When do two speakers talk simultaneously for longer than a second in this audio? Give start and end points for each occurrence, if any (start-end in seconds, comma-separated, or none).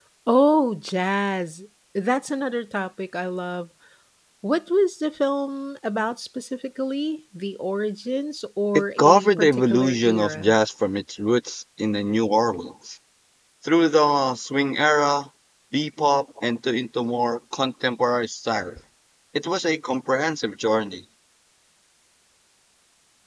8.7-10.5